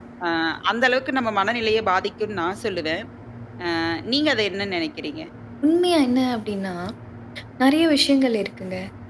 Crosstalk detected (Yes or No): No